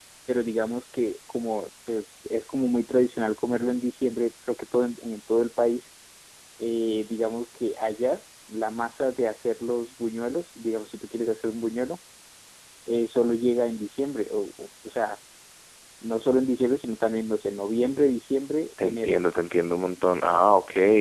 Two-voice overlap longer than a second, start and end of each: none

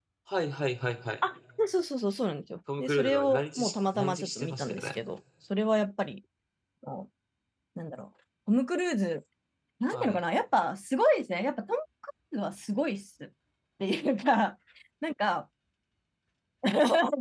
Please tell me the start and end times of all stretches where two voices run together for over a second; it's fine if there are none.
2.8-5.0

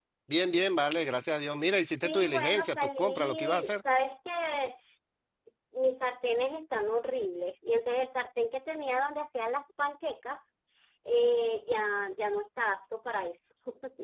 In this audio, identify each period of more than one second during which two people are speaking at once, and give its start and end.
2.0-3.7

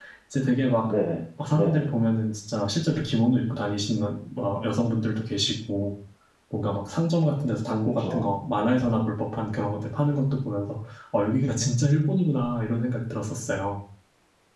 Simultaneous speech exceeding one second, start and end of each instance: none

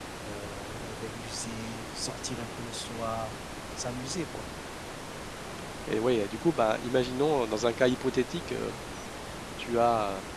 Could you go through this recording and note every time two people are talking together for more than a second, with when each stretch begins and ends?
none

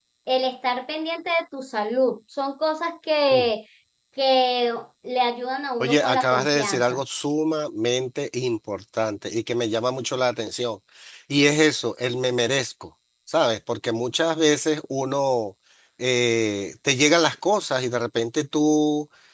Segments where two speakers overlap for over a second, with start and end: 5.8-7.0

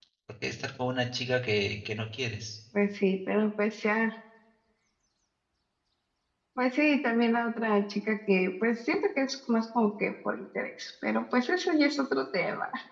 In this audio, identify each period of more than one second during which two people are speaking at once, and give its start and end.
none

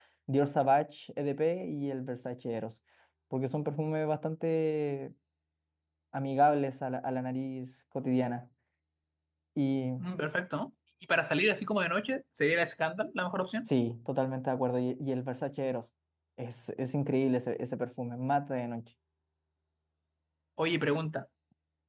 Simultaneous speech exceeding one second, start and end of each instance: none

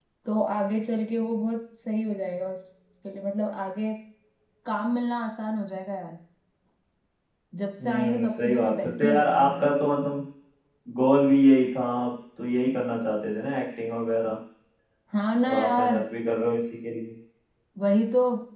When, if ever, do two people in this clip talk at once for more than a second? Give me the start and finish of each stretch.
7.8-9.7

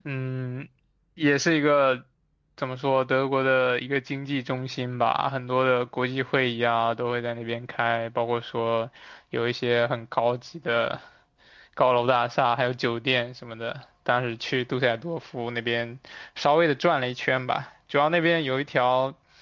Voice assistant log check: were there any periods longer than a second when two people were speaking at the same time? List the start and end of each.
none

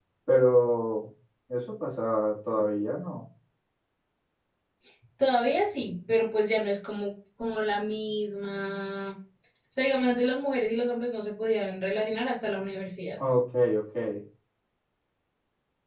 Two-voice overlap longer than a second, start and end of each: none

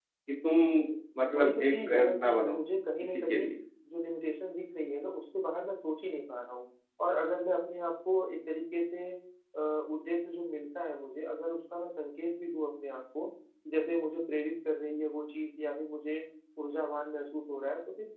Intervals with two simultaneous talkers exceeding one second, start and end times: 1.4-2.5

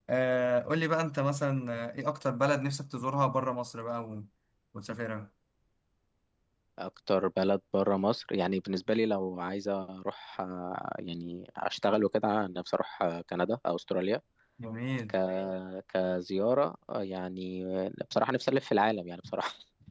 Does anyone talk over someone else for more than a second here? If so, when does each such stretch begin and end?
none

